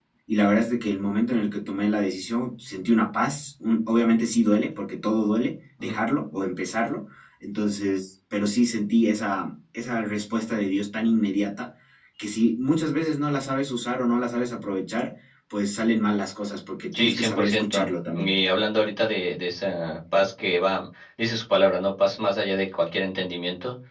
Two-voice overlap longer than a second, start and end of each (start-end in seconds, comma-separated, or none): 16.9-18.3